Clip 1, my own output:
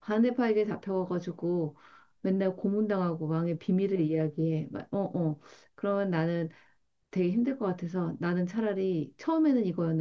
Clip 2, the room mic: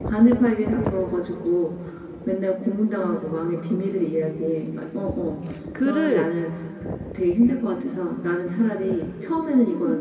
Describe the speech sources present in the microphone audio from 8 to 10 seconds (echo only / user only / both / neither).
echo only